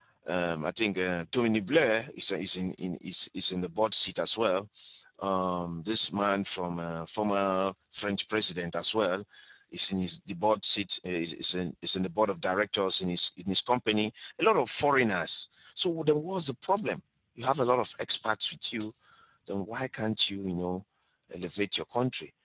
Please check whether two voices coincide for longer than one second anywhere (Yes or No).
No